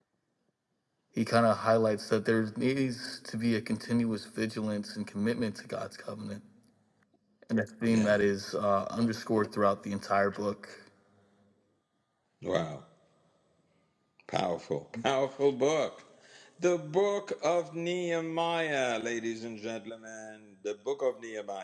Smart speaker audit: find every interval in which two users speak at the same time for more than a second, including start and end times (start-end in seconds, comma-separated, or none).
none